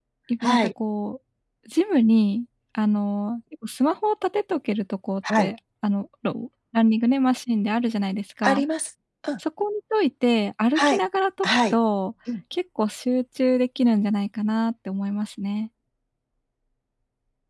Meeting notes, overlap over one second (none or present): none